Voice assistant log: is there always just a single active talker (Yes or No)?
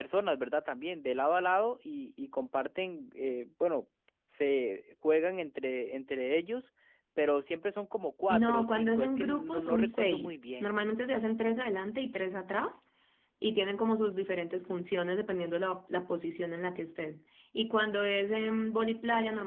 No